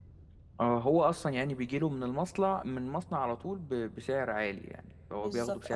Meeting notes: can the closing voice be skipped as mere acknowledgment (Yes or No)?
No